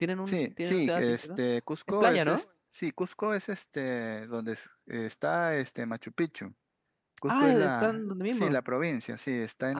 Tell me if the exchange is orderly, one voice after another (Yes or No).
No